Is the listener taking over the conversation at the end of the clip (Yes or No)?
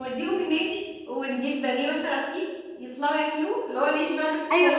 Yes